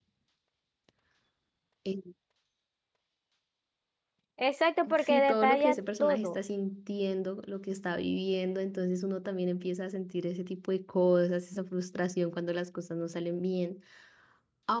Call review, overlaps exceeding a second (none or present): present